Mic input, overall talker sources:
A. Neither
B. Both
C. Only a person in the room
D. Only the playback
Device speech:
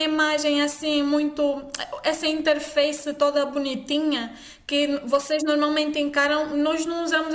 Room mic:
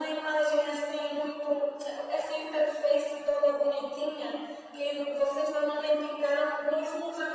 D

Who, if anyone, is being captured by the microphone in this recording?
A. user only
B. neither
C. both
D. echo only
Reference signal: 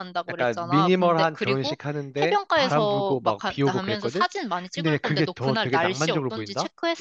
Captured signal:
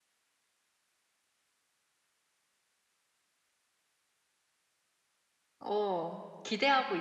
A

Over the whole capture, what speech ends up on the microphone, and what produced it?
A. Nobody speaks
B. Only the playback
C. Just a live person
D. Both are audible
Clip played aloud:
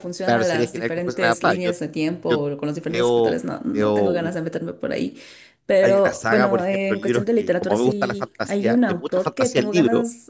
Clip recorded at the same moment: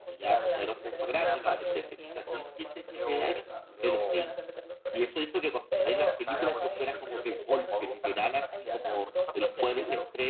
D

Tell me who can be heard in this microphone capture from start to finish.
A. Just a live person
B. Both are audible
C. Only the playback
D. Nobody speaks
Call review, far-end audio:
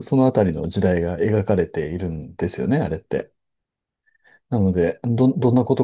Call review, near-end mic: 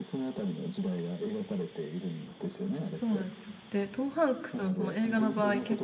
B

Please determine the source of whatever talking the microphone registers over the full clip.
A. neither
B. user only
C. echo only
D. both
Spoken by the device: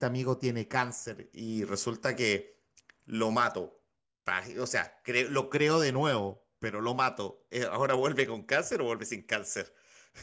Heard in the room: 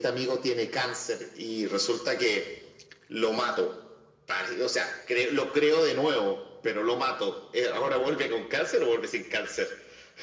C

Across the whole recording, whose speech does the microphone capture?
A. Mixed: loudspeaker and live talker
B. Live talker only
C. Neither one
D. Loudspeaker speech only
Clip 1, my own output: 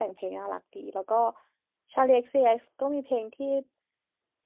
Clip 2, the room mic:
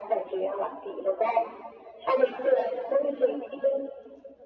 D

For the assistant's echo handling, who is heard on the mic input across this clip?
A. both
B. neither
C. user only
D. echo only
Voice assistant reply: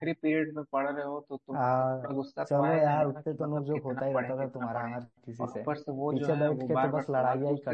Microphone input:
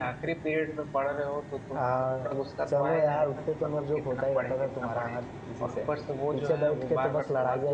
D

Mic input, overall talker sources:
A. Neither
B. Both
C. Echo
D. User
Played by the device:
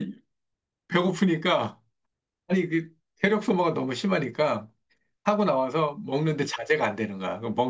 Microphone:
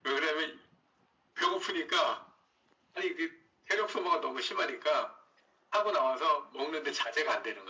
C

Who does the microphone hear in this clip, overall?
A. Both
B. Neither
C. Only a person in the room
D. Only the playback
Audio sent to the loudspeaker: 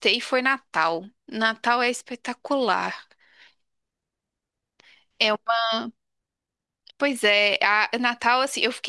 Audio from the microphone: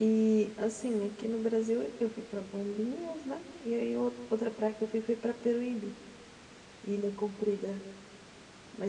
C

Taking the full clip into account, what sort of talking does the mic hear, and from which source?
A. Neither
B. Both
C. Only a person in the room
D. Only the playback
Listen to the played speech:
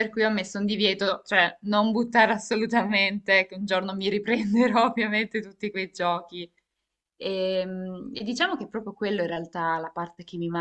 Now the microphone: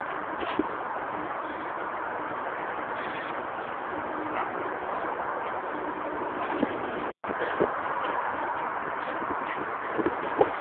A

